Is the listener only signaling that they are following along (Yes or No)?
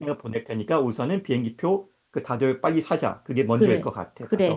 No